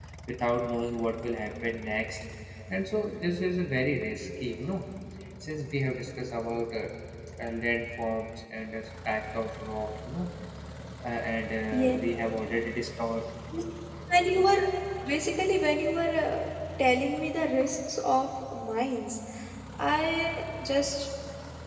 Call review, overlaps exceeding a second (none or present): none